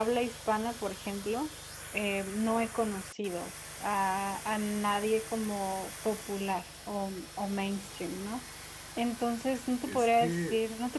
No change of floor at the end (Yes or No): Yes